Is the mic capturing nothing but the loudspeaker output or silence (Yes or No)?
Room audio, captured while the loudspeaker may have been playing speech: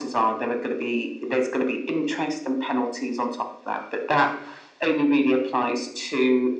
Yes